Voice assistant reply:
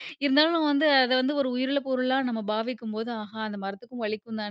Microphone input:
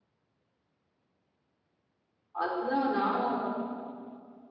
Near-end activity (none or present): present